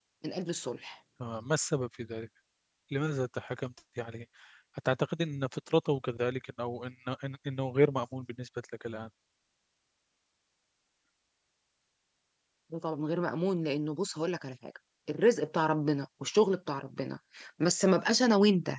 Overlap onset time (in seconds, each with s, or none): none